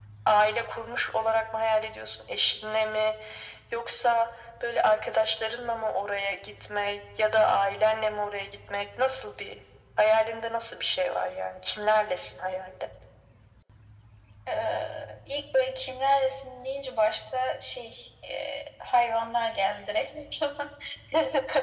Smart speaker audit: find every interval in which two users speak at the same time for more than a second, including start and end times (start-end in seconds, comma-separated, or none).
none